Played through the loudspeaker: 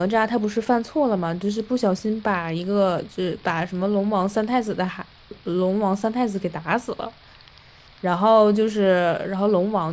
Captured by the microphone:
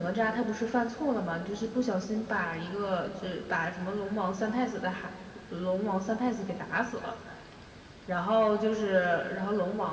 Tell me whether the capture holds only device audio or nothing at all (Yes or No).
Yes